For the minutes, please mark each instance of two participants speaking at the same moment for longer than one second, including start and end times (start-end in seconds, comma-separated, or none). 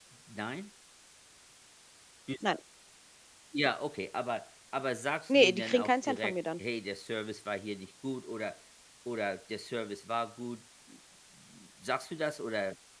5.3-6.6